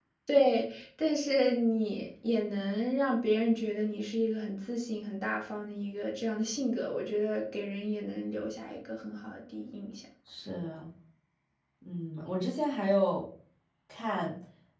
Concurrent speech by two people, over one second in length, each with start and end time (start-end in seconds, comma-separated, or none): none